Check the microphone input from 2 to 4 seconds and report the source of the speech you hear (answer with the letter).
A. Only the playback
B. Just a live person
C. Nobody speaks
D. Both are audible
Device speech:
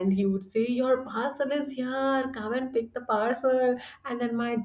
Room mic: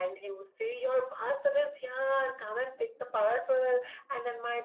A